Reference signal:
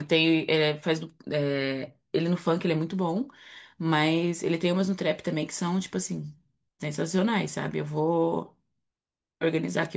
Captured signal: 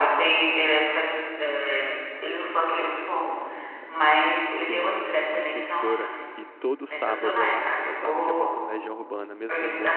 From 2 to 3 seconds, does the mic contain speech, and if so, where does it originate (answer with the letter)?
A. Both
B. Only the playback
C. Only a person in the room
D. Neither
B